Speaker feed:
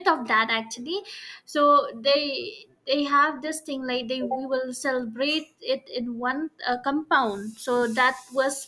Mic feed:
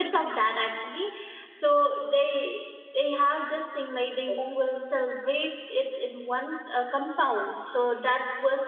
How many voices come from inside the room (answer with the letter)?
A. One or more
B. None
B